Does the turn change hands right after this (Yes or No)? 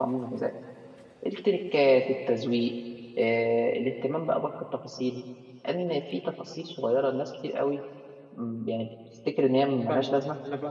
Yes